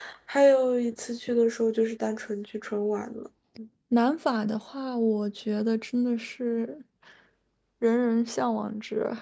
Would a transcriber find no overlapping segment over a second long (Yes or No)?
Yes